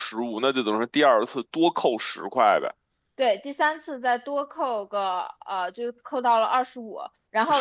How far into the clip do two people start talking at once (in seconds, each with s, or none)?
none